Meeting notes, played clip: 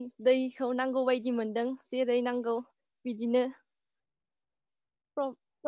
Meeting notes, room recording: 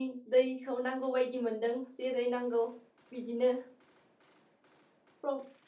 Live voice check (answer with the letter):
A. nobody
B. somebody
A